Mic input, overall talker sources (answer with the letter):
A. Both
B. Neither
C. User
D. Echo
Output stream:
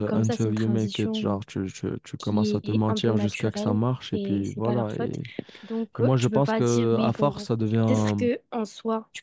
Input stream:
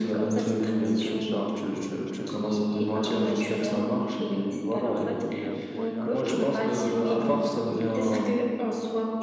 A